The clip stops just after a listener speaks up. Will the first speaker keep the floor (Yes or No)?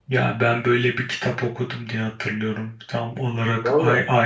Yes